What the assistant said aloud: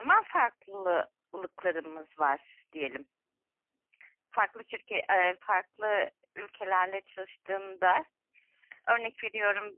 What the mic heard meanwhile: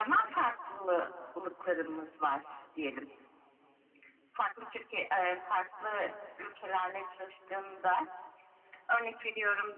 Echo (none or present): present